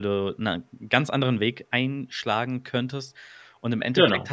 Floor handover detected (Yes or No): No